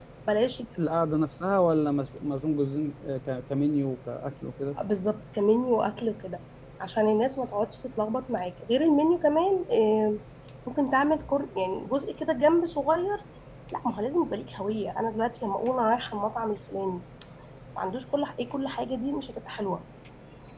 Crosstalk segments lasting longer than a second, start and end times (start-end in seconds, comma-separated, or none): none